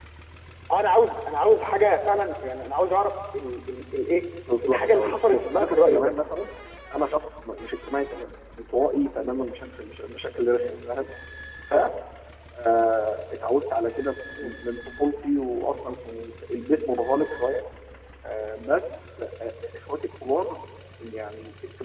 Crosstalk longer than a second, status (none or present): present